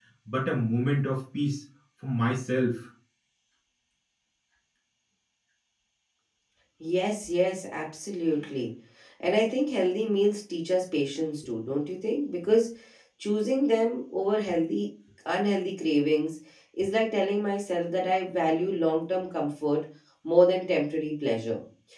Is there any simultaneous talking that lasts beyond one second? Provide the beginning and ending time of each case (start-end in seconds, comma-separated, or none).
none